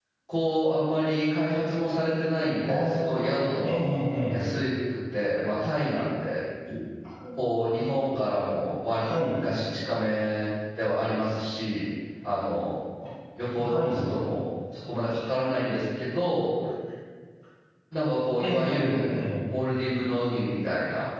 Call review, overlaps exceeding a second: present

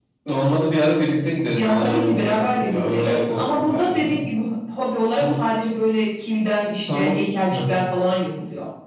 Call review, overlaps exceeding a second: present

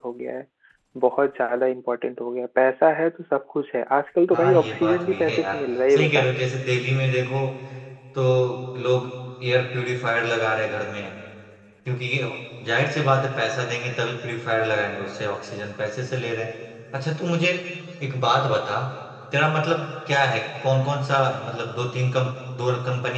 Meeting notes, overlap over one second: present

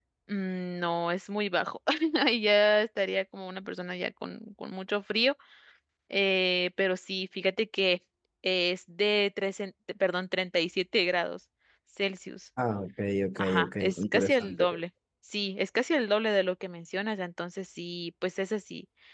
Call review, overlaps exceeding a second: present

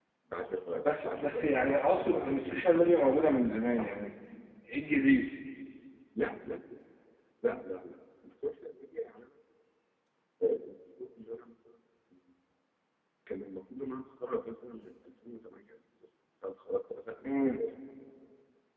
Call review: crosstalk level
present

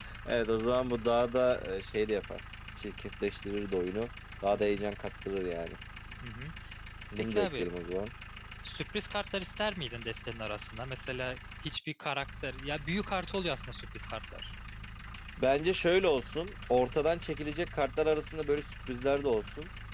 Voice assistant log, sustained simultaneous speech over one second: none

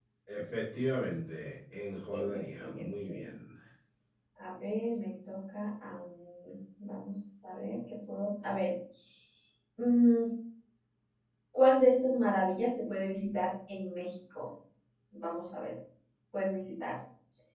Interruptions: present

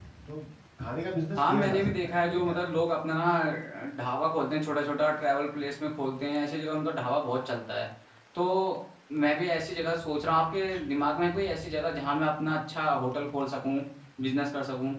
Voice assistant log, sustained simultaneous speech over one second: present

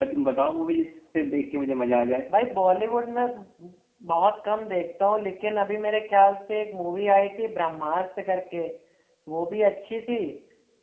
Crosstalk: none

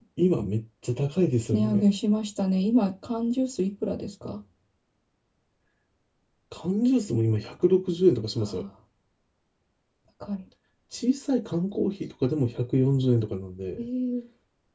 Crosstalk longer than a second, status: none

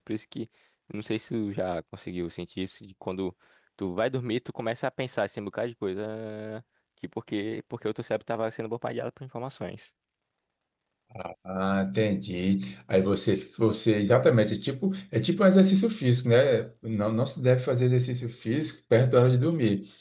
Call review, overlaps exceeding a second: none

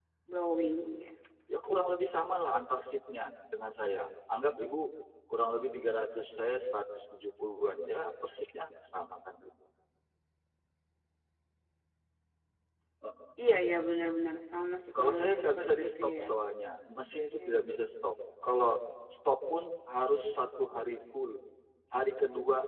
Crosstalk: present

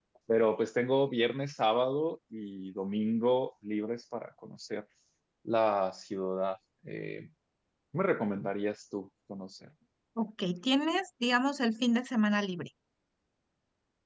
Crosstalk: none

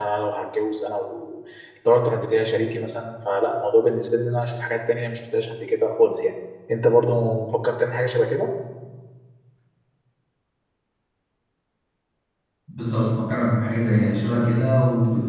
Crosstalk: none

